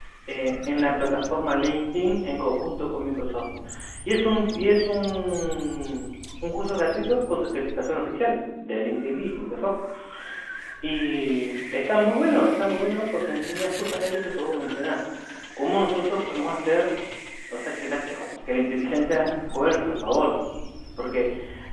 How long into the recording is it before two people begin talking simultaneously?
none

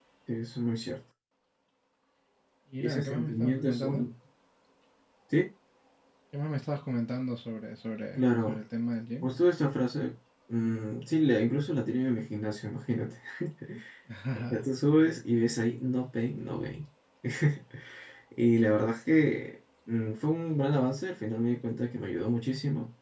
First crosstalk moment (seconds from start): 2.8 s

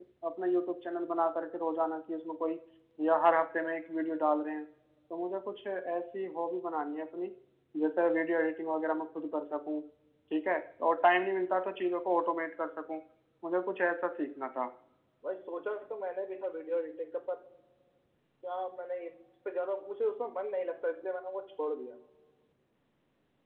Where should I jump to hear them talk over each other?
none

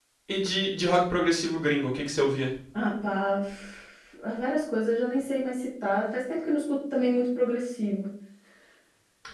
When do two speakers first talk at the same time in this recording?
none

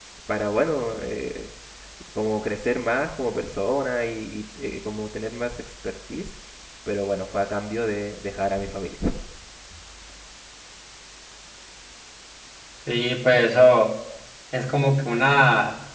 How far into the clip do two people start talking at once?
none

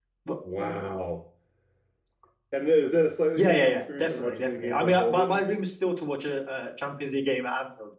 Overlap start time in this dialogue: 3.4 s

